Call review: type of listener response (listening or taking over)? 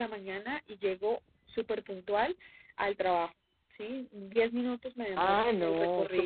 taking over